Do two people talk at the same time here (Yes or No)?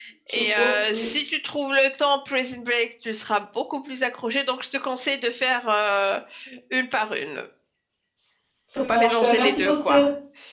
Yes